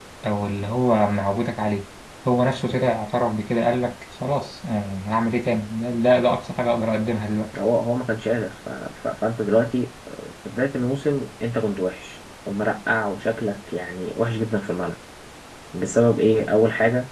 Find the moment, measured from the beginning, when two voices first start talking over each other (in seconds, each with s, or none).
none